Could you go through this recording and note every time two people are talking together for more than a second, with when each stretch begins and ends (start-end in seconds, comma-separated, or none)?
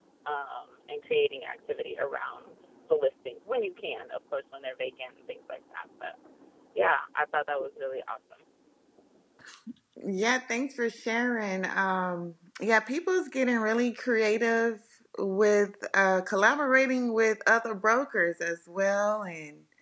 none